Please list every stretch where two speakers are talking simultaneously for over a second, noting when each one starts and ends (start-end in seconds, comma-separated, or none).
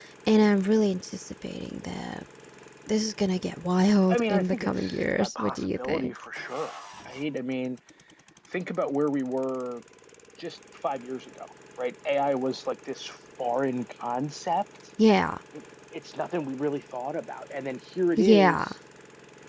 4.1-6.1